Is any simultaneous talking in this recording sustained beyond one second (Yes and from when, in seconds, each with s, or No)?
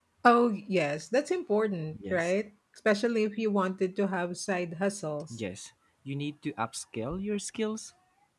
No